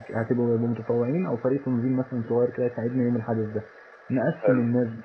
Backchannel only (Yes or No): Yes